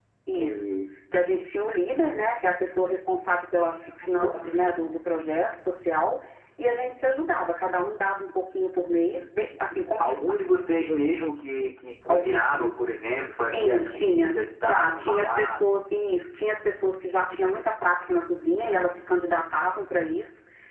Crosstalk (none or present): present